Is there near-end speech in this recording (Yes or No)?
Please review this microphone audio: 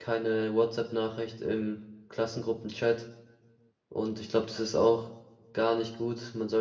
Yes